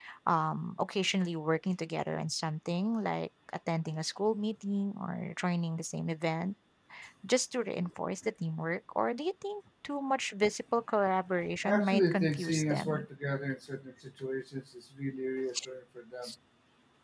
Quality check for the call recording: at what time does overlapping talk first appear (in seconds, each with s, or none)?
11.6 s